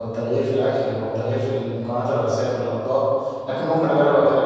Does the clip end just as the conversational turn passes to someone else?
No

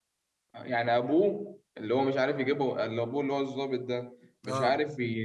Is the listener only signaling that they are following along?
Yes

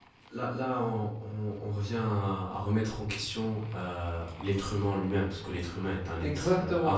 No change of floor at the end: No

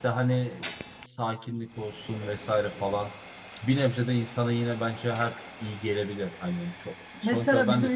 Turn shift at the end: Yes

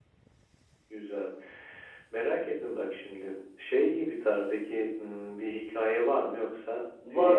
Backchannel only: No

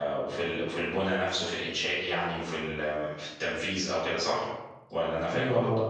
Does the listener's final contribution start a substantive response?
Yes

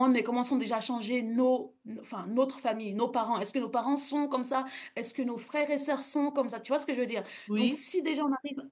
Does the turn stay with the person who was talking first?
Yes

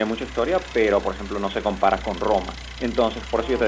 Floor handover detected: No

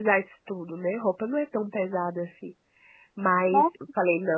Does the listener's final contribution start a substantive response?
No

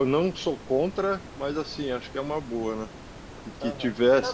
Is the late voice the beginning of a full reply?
Yes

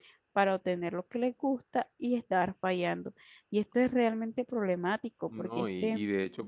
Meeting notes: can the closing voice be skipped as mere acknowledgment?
No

